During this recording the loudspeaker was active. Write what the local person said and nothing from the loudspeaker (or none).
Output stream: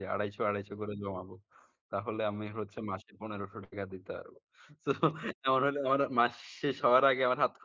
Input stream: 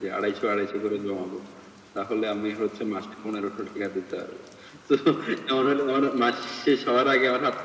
none